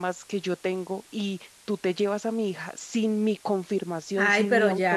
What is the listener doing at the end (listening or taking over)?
taking over